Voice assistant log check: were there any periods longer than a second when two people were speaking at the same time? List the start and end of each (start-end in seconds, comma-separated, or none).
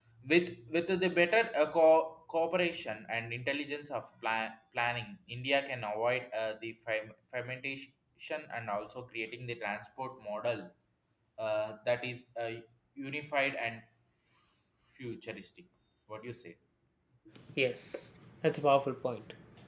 none